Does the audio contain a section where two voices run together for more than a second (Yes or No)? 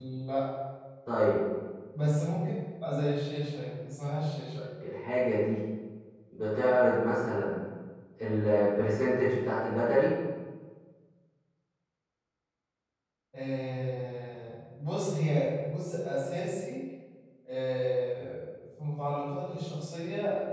No